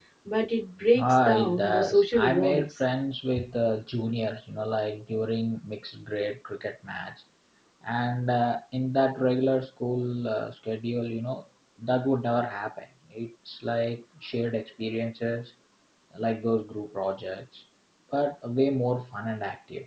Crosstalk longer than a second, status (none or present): present